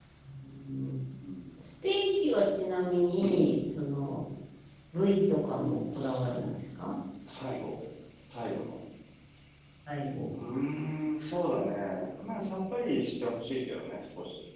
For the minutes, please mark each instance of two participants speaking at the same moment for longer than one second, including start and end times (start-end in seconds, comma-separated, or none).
none